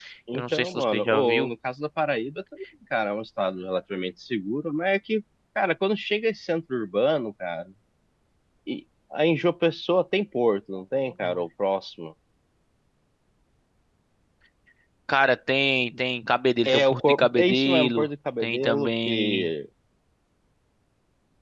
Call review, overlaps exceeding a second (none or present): present